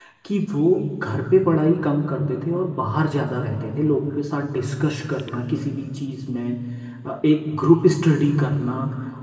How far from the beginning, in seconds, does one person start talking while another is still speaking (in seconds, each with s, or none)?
none